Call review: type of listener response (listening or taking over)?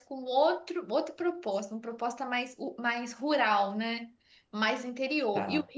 listening